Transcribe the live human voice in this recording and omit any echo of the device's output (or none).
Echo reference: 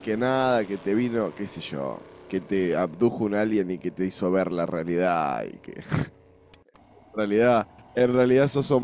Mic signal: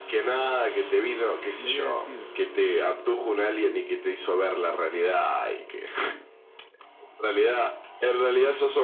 le voy a decir,